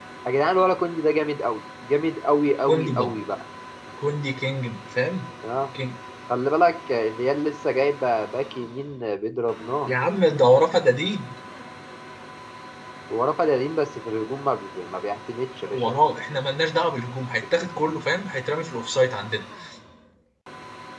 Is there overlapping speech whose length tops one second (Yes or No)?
No